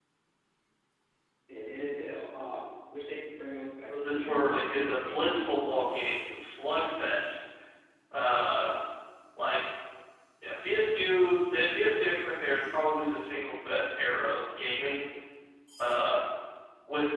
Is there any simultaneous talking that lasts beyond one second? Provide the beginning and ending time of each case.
3.9-5.7

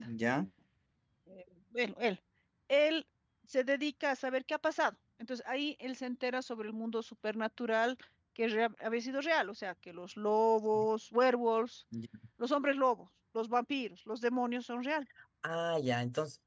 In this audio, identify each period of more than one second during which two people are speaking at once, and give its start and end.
none

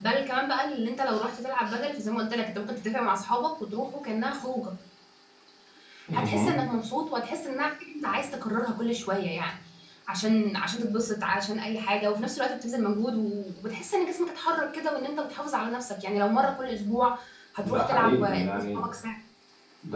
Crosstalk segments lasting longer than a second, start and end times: 17.6-18.8

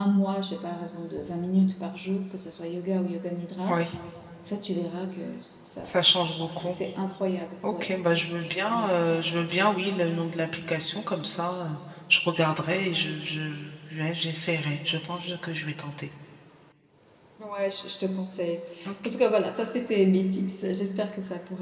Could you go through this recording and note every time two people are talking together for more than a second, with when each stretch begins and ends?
none

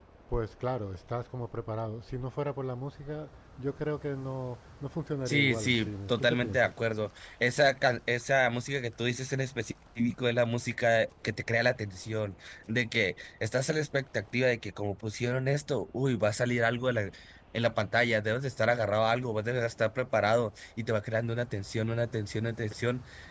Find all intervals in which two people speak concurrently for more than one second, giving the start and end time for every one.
5.2-6.7

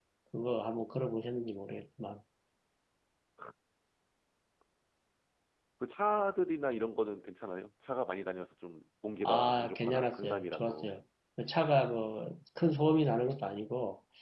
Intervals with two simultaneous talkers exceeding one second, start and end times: 9.2-10.9

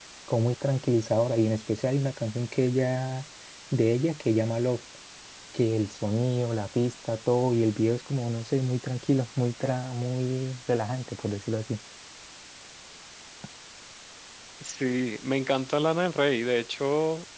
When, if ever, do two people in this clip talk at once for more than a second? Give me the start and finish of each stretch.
none

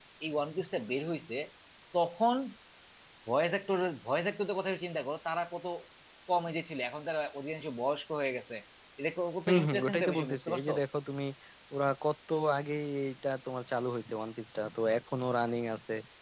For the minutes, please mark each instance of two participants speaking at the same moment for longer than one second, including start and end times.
9.5-10.7

